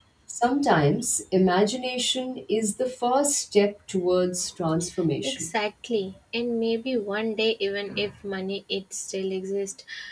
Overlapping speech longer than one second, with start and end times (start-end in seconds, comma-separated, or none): none